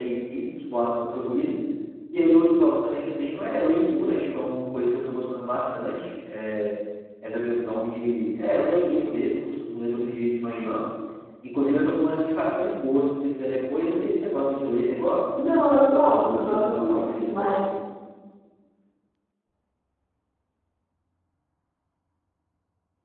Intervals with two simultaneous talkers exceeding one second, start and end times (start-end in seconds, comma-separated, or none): 16.2-17.6